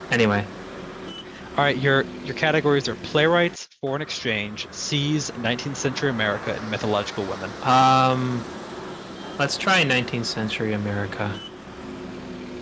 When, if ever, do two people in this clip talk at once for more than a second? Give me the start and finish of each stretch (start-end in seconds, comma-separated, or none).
none